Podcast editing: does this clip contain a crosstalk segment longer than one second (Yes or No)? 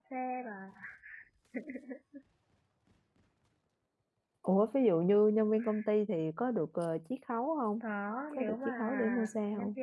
Yes